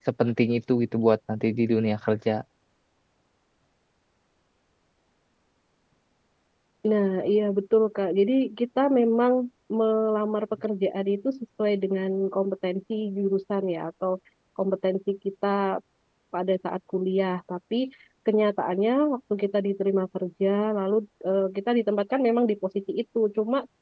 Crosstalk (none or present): none